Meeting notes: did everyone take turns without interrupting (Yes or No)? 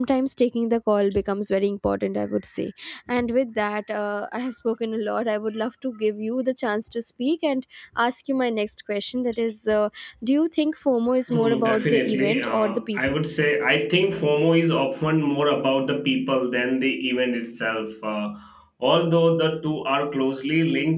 No